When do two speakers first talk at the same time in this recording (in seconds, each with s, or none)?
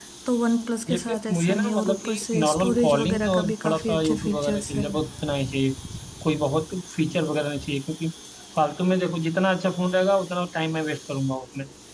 0.9 s